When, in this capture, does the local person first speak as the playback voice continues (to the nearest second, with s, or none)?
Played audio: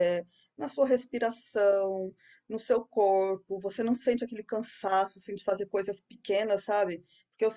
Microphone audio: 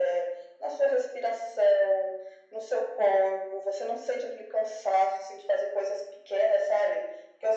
none